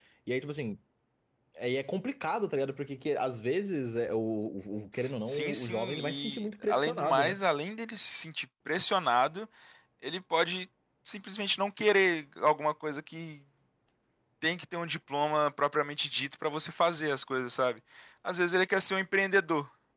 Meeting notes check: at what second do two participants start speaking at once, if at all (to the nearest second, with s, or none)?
5 s